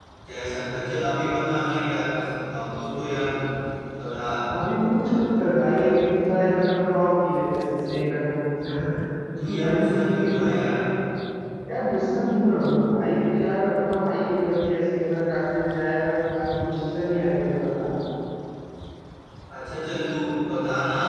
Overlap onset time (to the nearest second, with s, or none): 9 s